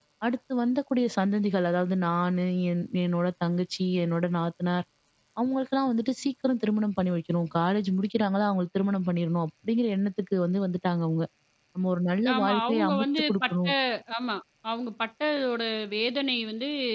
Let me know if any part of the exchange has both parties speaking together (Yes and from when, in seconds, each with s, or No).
Yes, from 12.3 s